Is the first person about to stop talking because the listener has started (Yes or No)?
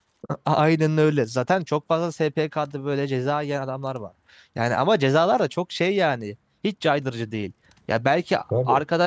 No